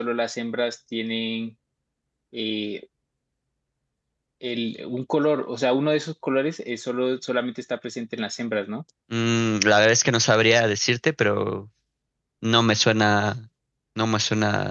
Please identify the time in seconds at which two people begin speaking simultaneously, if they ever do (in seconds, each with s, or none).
none